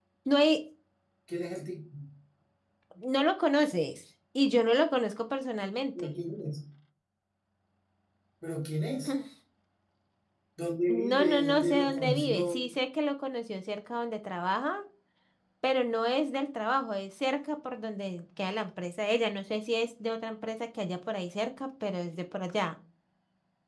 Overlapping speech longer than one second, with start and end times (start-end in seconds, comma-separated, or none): 10.9-12.6